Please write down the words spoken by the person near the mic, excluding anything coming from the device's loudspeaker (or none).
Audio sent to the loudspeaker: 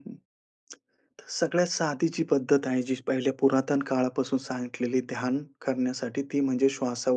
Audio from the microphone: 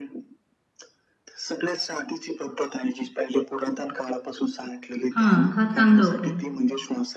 हां, हा चांगला उपाय आहे.